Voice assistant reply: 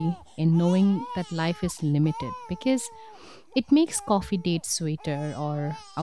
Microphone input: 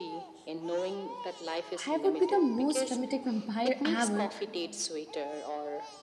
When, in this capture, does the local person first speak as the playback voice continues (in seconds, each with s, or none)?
1.9 s